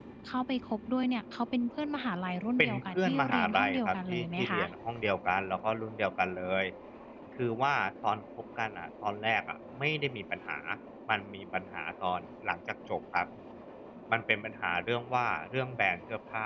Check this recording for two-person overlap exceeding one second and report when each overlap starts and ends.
2.6-4.6

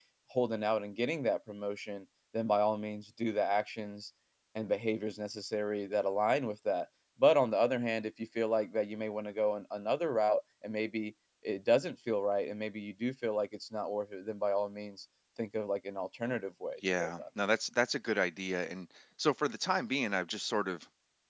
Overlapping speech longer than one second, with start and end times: none

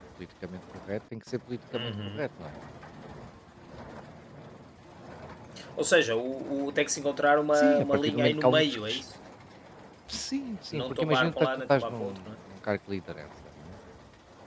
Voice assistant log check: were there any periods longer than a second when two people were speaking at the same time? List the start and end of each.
7.6-8.9, 10.7-12.2

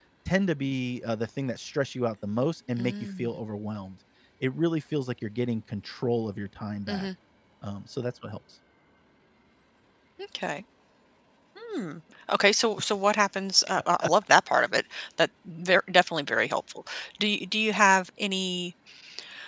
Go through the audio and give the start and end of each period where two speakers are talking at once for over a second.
none

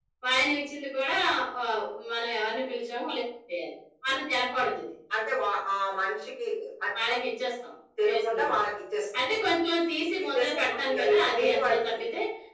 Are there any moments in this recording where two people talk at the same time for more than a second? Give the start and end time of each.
10.3-11.9

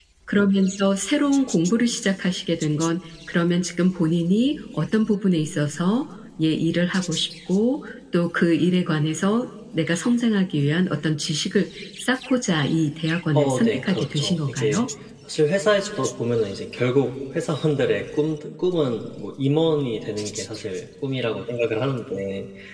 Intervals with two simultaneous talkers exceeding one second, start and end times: 13.3-14.8

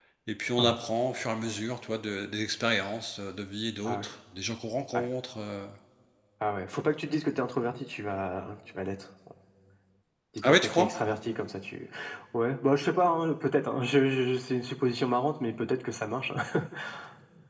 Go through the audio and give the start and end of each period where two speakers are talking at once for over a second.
none

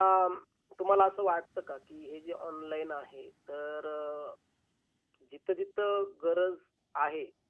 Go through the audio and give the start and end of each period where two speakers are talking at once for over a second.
none

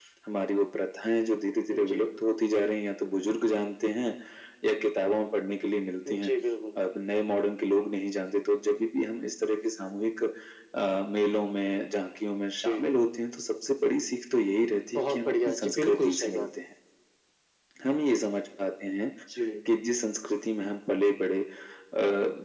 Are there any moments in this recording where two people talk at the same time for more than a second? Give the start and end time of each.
14.9-16.5

